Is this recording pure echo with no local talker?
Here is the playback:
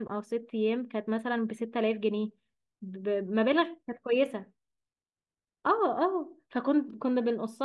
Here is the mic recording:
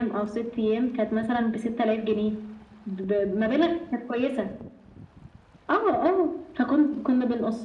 Yes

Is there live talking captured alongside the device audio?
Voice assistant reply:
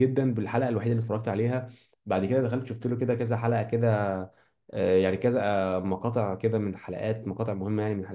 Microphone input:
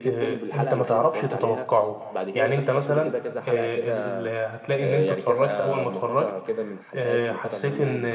Yes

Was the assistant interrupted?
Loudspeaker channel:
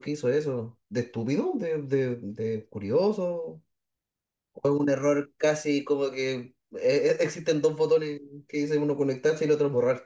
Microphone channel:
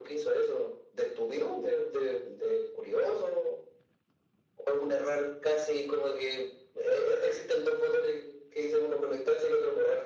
No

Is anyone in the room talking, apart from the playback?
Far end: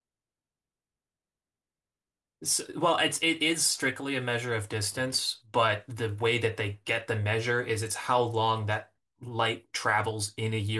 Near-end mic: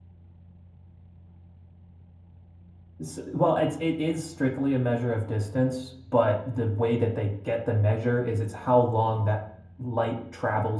No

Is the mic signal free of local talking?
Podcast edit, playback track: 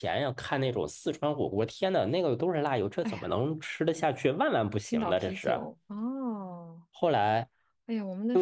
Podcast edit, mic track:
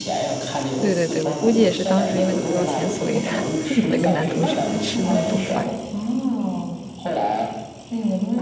No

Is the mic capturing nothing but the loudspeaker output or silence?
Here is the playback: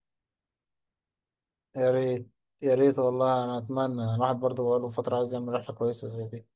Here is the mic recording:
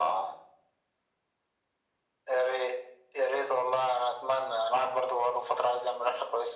Yes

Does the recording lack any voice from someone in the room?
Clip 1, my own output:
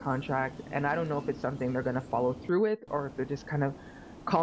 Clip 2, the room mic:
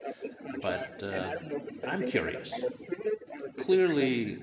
No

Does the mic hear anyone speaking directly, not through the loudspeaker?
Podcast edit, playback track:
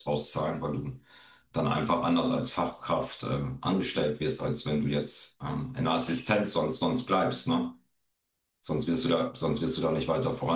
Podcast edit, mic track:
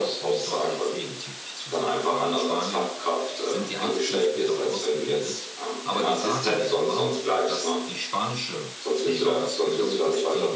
Yes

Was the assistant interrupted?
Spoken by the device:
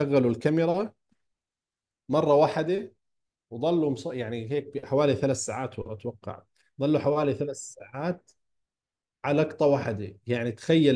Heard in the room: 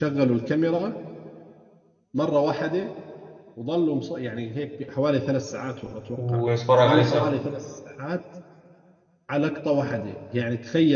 Yes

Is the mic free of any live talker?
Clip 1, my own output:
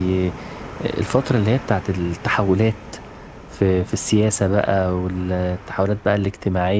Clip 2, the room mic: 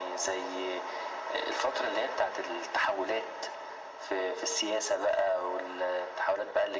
Yes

